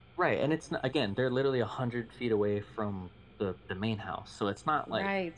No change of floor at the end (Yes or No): No